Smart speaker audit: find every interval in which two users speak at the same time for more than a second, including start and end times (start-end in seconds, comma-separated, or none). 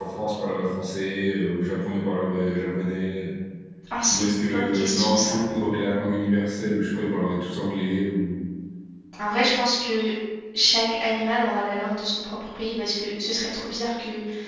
4.1-5.4